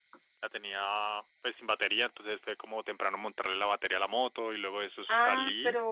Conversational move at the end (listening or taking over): taking over